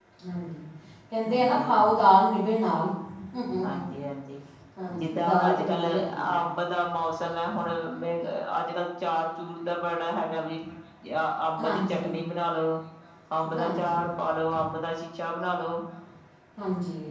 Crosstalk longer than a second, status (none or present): present